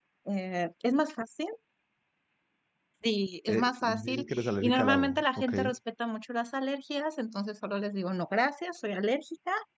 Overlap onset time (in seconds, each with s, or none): 3.5 s